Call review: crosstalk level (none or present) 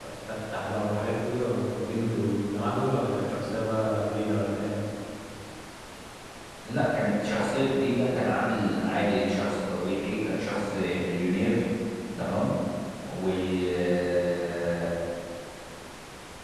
none